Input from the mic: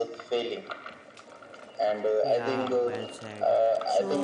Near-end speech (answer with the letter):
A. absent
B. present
B